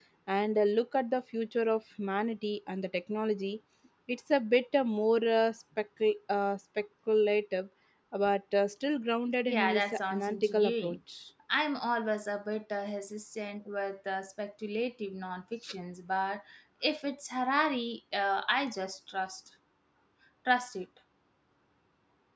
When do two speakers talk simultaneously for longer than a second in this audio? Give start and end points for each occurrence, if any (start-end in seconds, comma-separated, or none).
9.5-11.0